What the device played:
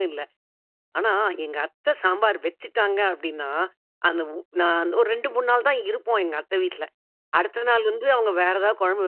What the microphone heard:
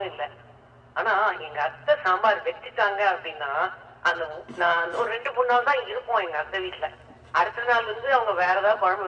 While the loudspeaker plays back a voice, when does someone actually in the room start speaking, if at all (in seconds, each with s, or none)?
none